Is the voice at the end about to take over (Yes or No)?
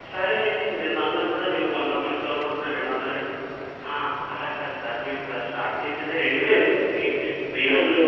No